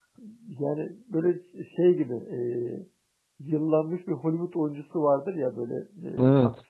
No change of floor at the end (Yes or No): Yes